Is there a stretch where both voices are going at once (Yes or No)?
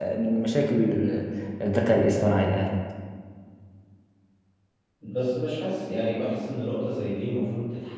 No